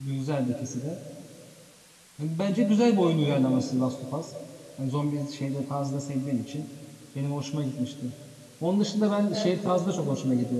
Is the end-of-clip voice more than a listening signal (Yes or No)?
No